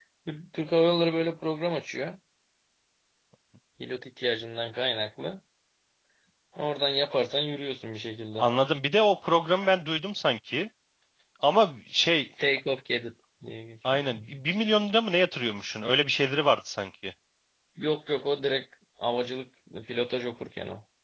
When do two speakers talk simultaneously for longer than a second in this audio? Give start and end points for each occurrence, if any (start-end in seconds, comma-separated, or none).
none